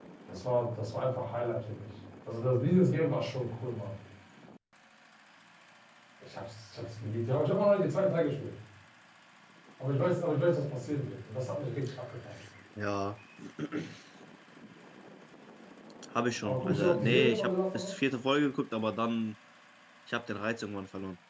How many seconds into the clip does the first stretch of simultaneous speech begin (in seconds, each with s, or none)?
16.4 s